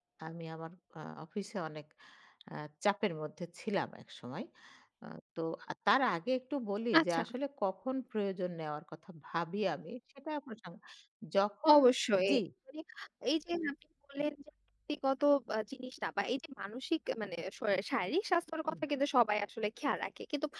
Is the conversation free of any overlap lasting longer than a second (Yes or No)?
Yes